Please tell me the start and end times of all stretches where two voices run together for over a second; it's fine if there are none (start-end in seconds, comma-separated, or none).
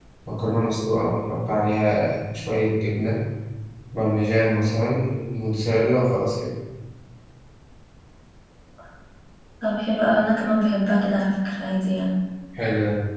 none